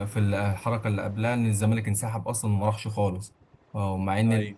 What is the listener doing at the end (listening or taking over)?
listening